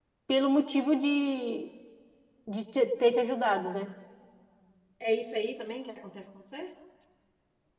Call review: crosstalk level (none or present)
none